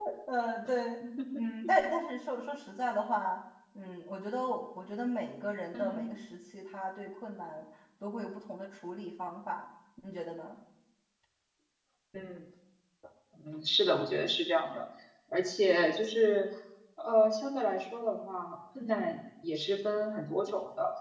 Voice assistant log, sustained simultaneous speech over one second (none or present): none